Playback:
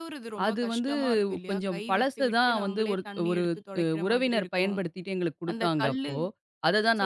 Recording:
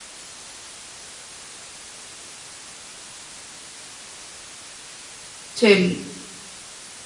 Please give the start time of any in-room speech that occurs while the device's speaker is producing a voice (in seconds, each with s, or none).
5.6 s